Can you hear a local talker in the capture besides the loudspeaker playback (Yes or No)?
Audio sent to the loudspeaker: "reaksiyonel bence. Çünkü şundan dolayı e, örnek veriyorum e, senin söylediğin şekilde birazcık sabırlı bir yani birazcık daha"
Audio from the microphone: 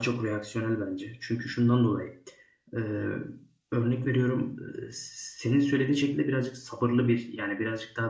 No